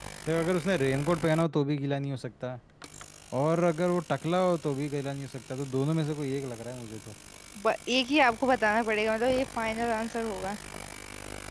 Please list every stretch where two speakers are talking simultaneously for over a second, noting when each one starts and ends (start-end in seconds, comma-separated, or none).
none